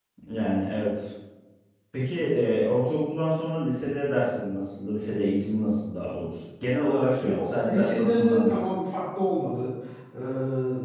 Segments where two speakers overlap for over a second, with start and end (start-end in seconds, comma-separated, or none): 7.2-8.5